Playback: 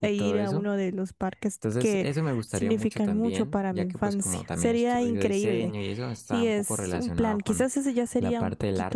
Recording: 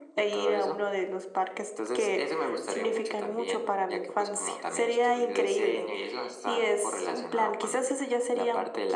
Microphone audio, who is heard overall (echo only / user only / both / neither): echo only